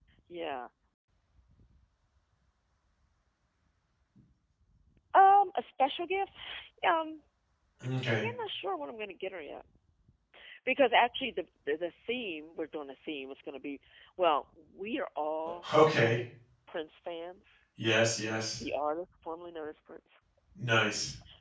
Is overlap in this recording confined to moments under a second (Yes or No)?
Yes